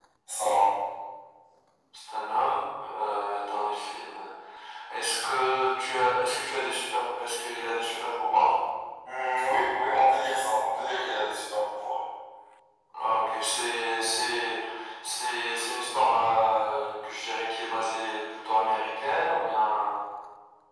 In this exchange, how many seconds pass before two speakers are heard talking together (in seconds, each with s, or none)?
none